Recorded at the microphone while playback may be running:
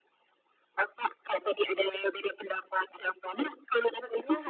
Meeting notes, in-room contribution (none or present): present